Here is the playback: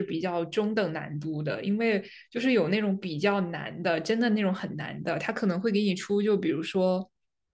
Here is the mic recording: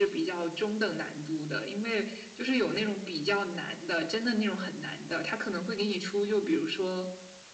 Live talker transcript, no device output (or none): none